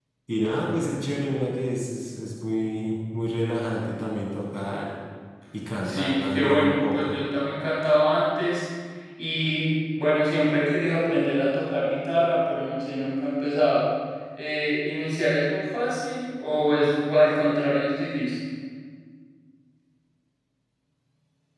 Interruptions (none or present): present